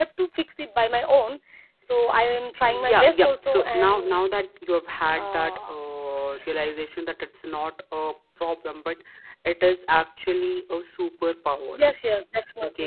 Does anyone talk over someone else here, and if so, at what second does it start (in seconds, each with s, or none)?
2.7 s